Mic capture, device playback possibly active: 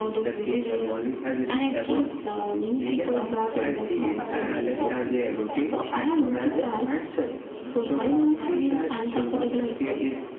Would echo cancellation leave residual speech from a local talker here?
Yes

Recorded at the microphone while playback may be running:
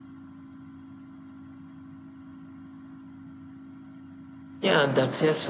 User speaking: Yes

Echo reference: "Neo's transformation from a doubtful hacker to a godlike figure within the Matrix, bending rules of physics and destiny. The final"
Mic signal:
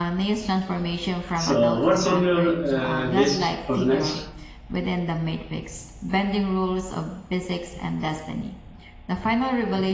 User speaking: Yes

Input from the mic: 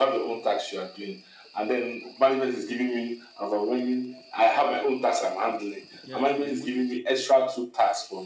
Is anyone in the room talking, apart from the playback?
Yes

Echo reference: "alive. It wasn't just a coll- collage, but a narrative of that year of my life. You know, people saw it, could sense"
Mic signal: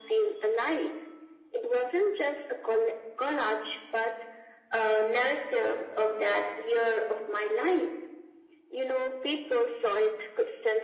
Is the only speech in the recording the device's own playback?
Yes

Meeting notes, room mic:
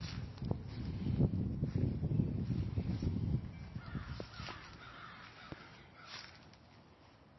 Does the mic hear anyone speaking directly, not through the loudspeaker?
No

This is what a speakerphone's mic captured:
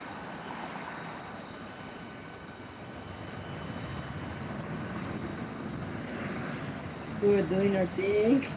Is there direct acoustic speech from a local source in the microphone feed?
Yes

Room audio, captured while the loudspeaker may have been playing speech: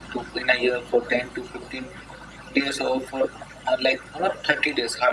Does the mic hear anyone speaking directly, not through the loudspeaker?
No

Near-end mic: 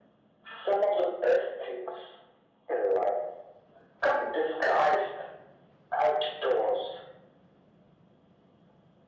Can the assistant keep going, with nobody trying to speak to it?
Yes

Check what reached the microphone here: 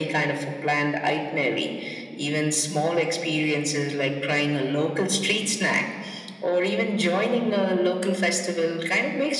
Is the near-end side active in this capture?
No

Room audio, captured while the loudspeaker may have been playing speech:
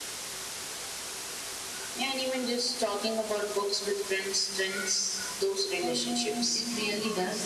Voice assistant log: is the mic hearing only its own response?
No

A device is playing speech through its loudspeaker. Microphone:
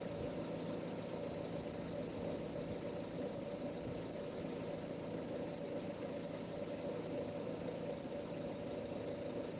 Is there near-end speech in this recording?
No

